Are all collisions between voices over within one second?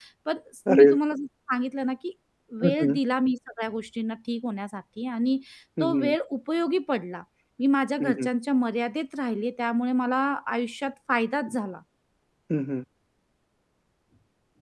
Yes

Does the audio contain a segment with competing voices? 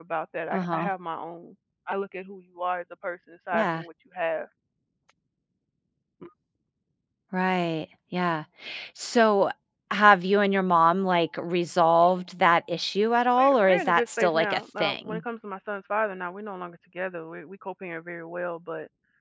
Yes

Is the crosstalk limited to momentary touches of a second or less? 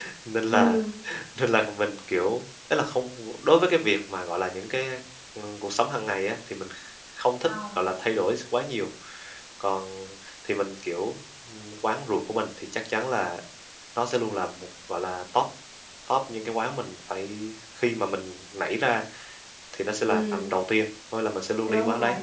Yes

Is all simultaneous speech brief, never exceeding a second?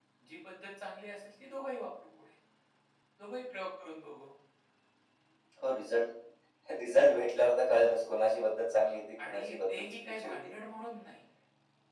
No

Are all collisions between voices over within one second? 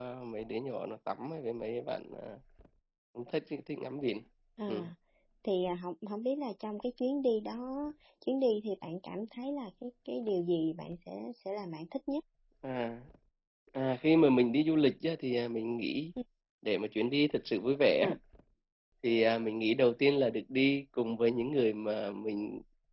Yes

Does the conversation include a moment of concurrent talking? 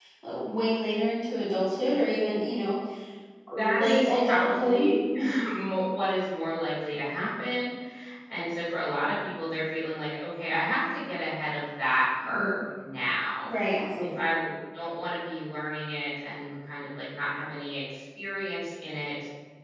Yes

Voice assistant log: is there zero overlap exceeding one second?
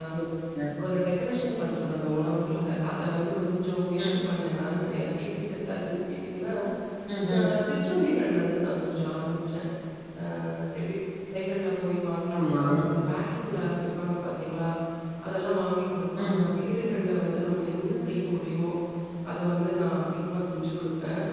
Yes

